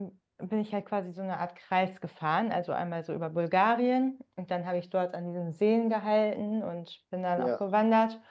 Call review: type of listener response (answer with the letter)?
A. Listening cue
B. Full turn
A